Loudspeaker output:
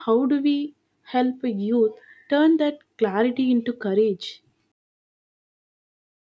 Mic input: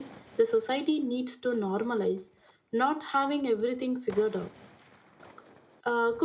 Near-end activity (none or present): present